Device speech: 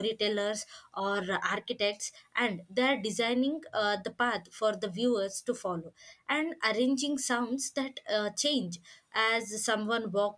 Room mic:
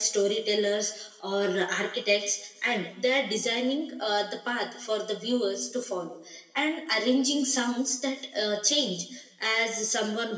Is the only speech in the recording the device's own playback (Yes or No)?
Yes